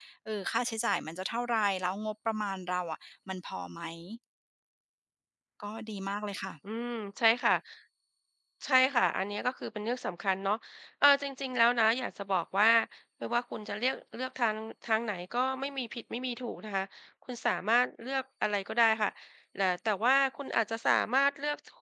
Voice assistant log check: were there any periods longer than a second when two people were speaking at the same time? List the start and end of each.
none

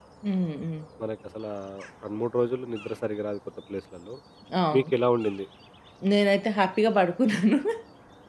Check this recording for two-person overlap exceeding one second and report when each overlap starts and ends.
none

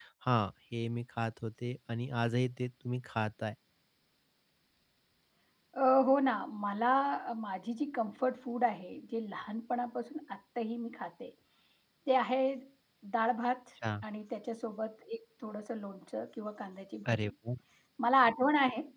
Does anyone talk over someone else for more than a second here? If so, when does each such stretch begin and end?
none

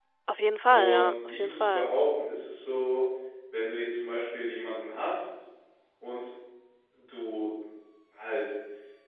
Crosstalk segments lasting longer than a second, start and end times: 0.7-1.9

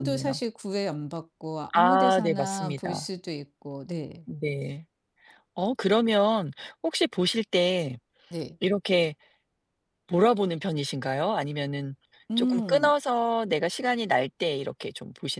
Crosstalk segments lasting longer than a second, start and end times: 1.7-3.0

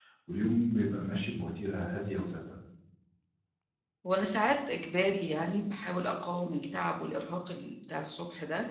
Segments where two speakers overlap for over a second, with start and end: none

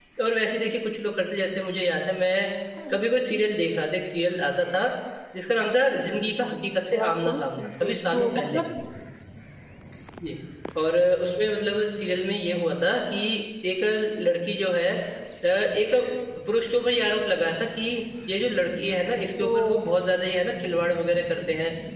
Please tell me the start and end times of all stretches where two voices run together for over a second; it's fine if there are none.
6.7-8.6

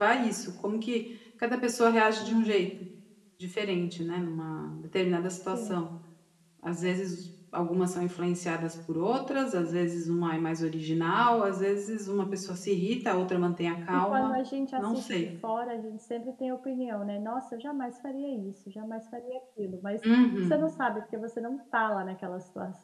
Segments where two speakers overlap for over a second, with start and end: none

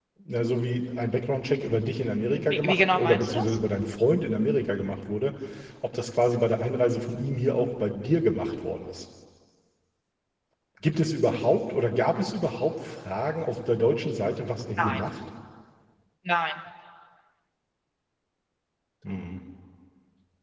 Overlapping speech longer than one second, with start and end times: 2.3-3.6

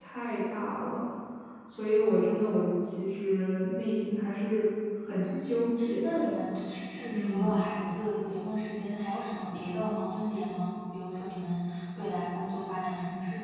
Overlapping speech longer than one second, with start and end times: none

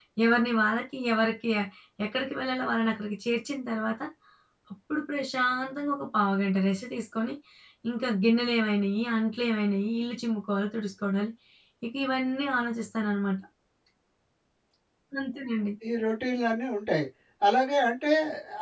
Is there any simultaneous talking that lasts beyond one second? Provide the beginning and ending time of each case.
none

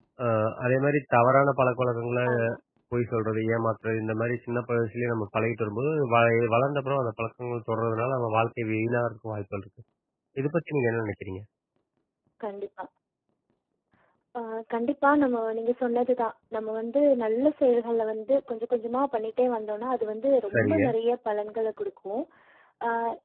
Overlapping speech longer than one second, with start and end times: none

